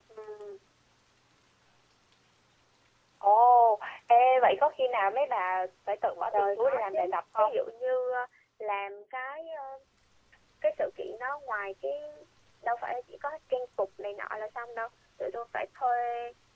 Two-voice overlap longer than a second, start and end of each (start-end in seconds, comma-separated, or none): 6.3-7.6